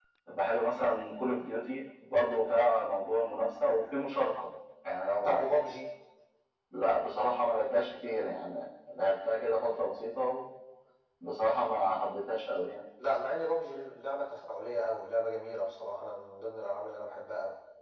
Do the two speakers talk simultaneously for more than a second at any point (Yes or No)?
No